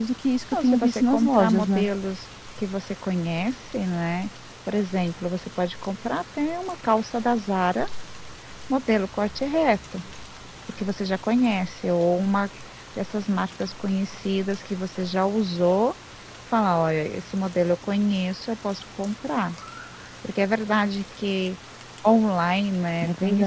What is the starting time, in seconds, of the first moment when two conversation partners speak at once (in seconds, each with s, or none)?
0.6 s